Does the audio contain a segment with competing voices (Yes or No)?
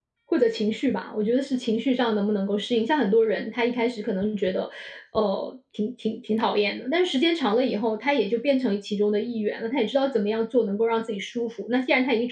No